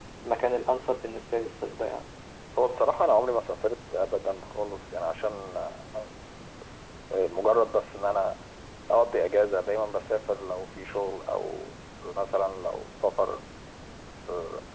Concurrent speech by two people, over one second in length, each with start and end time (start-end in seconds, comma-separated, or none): none